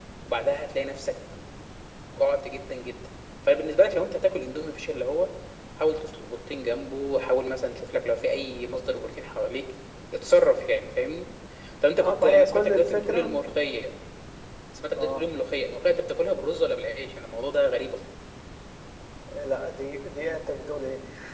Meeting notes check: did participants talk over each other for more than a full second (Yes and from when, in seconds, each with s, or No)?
Yes, from 12.0 s